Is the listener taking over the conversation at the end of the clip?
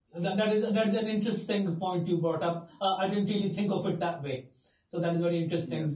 No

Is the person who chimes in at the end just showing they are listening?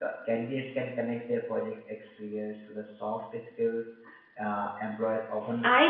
No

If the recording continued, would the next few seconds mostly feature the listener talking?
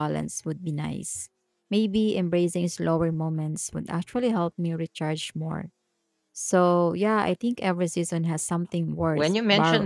Yes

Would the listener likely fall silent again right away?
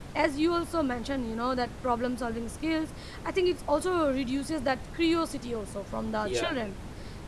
Yes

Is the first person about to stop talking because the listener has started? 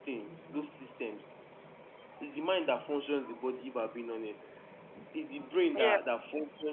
No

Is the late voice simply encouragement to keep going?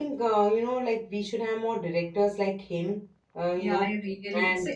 No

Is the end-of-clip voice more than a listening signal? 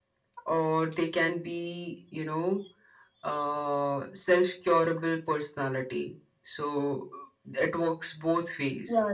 No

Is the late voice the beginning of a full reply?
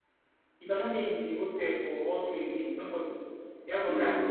No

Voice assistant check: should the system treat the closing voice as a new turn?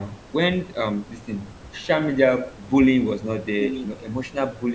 No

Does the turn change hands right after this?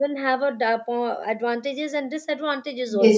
Yes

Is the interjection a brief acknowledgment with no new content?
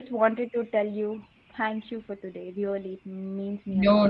No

